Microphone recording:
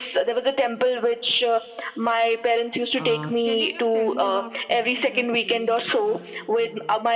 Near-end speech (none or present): present